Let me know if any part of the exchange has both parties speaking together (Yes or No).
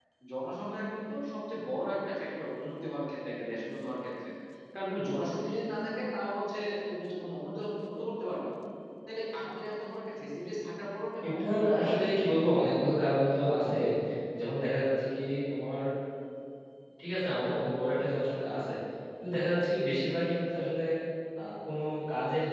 Yes